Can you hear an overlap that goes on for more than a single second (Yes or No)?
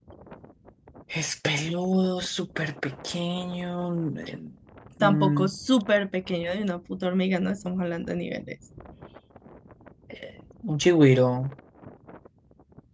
No